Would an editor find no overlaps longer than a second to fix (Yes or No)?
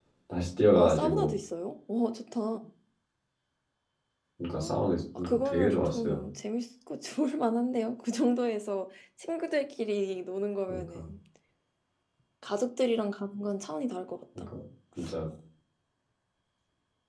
No